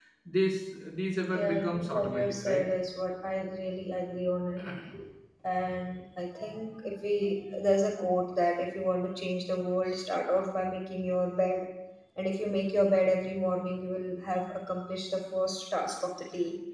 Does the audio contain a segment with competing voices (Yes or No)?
Yes